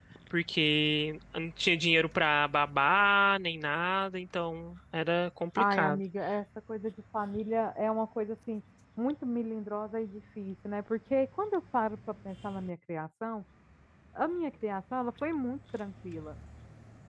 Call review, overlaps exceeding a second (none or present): none